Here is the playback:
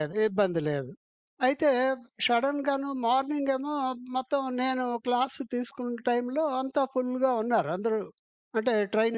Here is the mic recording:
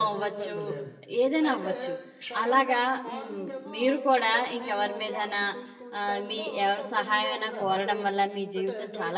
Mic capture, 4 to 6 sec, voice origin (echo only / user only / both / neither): both